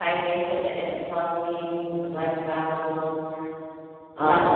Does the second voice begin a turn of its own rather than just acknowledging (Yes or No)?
Yes